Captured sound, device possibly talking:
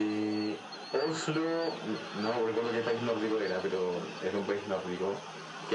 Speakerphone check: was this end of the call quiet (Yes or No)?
Yes